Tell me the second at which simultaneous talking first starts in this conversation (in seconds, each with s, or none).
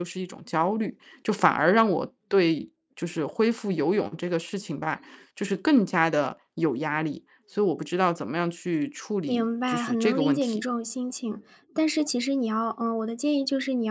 9.3 s